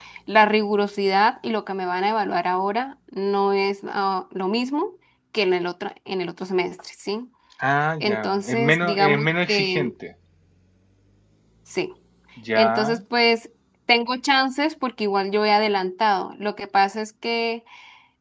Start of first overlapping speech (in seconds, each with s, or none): 8.0 s